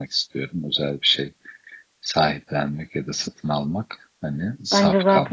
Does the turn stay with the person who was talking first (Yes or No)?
No